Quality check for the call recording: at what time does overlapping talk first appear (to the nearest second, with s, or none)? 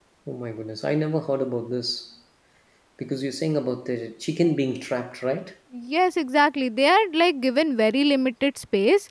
none